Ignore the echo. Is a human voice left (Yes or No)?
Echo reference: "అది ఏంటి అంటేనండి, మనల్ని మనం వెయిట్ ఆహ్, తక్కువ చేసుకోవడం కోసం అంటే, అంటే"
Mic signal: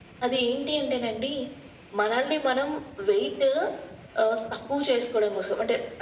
No